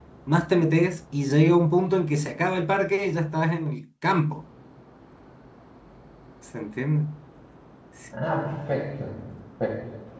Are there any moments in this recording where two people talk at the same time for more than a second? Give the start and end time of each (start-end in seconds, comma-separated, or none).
none